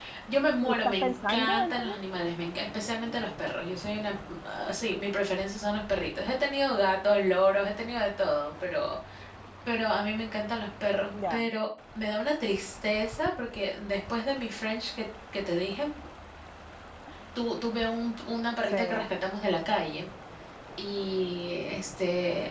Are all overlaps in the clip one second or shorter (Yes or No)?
No